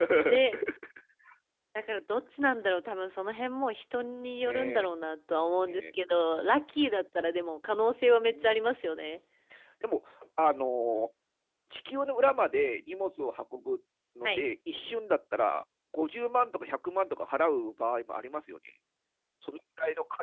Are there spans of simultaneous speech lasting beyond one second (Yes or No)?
No